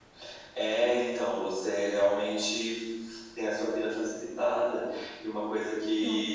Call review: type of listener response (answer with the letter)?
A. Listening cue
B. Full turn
A